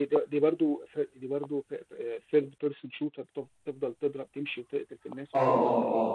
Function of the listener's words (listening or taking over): taking over